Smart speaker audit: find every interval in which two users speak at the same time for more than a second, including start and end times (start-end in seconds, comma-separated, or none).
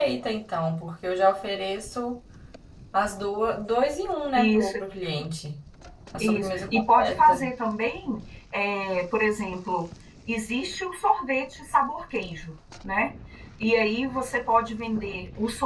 6.2-7.5